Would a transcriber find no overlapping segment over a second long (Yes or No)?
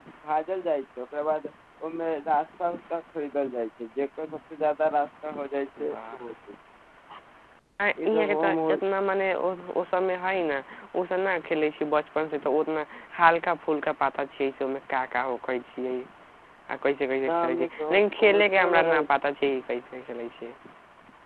No